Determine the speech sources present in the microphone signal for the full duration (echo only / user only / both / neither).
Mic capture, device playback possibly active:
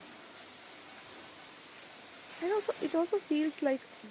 user only